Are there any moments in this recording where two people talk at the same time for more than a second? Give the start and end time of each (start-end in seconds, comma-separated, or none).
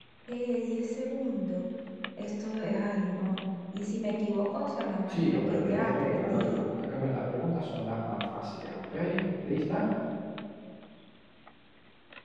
5.1-6.6